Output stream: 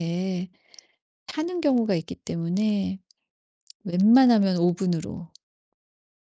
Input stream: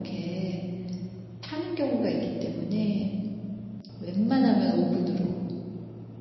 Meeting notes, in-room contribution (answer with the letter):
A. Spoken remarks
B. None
B